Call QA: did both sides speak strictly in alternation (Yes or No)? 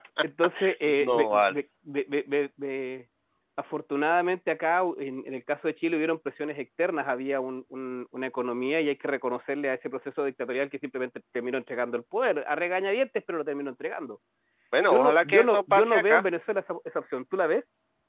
No